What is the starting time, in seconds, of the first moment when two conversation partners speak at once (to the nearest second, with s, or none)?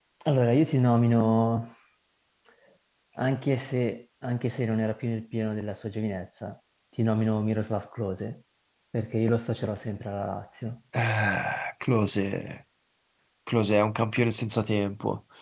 none